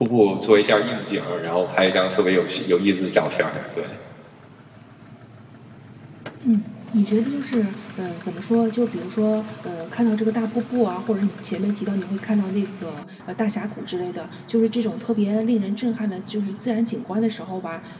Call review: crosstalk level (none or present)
none